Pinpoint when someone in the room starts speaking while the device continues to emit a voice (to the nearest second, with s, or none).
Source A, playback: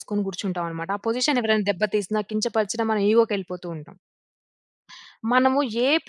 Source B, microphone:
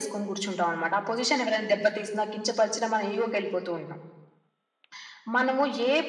none